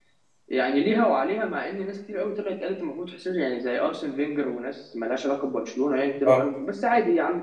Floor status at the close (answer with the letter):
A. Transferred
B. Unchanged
B